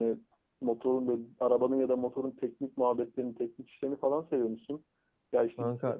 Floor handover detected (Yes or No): No